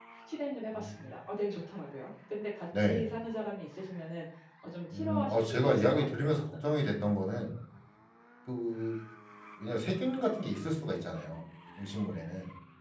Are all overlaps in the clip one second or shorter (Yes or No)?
No